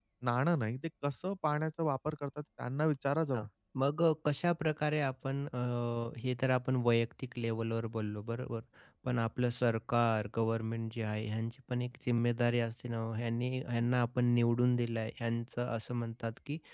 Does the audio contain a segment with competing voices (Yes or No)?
No